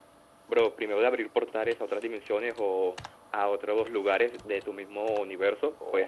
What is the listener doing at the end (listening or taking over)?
taking over